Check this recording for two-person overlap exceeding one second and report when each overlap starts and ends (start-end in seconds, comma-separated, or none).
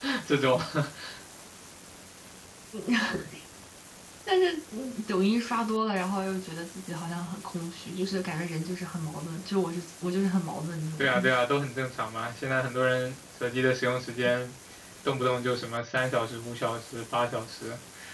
none